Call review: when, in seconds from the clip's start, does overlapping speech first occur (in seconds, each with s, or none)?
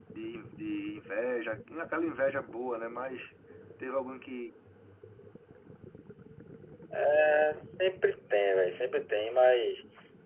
none